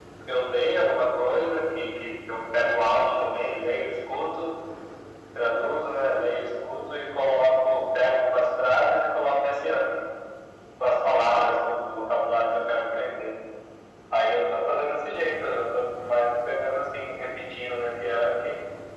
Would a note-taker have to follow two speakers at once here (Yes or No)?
No